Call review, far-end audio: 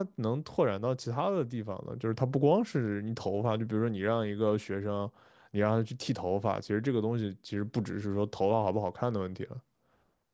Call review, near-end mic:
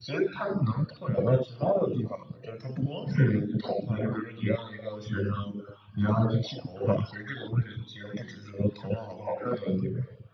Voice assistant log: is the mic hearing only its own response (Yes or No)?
Yes